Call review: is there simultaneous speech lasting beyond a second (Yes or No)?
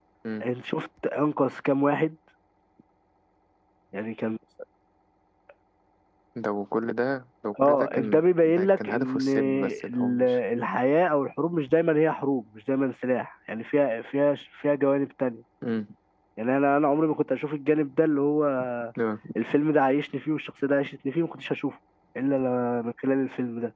Yes